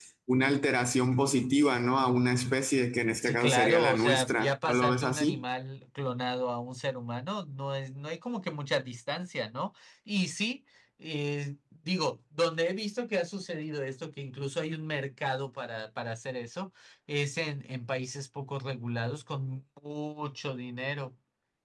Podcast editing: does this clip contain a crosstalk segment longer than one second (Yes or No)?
Yes